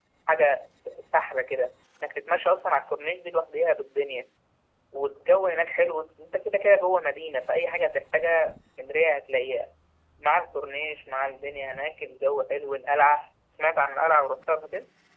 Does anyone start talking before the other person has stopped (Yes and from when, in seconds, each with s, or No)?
No